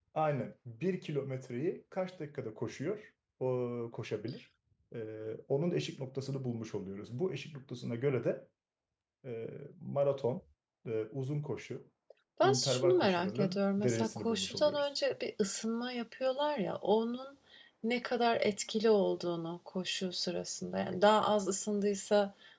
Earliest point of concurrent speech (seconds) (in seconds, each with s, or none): 12.4 s